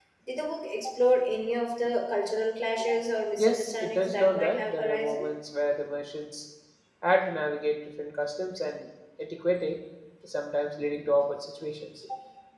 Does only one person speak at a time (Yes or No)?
No